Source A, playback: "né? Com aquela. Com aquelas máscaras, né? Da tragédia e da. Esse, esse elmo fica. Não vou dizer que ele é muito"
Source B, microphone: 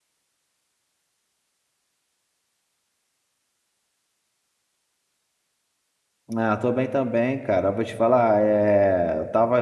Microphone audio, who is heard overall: user only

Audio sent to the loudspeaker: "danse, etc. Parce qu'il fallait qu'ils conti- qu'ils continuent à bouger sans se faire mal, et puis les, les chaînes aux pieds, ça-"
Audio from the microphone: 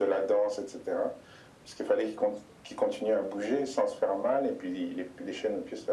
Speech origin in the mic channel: echo only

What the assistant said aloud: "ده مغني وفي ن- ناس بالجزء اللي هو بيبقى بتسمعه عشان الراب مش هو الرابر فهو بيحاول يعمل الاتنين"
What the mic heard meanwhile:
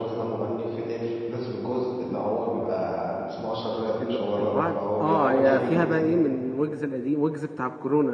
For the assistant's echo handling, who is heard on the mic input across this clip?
both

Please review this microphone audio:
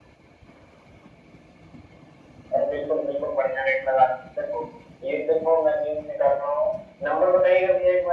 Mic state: echo only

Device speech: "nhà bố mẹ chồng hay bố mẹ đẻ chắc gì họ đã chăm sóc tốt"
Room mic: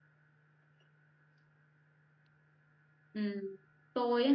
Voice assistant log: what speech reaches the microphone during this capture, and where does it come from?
user only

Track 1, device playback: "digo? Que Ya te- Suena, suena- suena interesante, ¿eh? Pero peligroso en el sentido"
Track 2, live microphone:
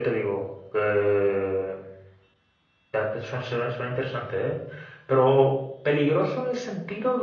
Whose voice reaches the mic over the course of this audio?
echo only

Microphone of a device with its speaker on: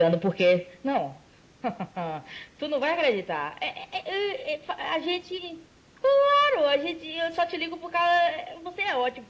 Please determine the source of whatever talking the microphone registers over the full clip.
echo only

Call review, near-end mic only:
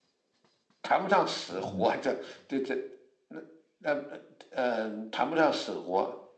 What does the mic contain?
both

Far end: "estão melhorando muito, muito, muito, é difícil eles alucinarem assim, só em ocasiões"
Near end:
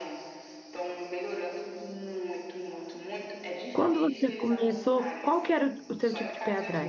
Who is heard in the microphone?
both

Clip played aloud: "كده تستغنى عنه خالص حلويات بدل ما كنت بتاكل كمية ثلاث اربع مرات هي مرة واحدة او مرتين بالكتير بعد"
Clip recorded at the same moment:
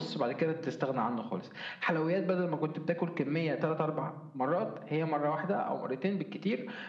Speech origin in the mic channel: echo only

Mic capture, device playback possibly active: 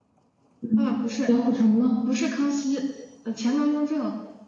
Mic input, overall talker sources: both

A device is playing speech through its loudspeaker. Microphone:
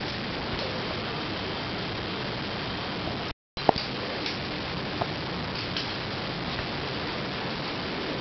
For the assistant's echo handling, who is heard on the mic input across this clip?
neither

